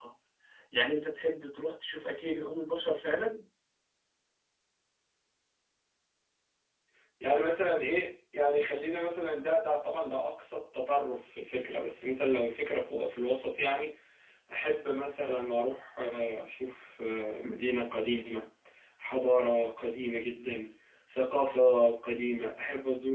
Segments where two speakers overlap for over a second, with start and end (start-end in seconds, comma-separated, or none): none